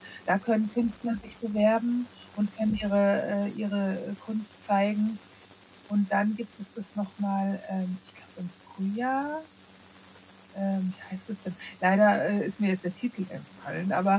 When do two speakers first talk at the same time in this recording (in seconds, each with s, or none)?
none